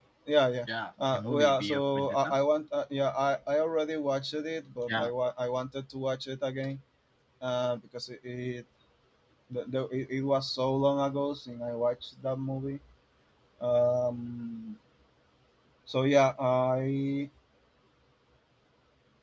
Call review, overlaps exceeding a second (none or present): present